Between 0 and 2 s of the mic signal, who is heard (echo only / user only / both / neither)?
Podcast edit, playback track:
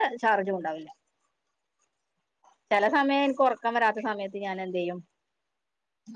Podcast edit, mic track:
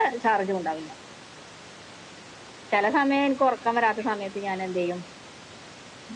echo only